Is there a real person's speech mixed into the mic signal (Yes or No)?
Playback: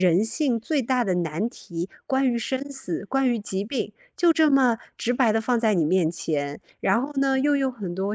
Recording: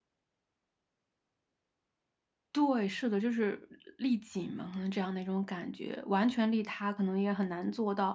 Yes